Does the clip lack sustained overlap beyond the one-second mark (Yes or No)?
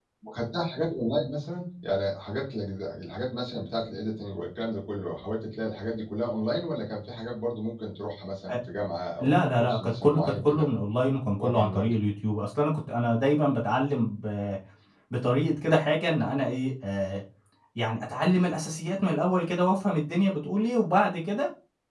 No